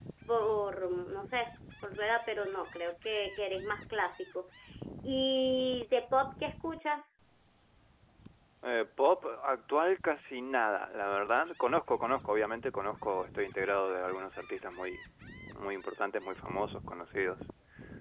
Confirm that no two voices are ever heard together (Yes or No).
Yes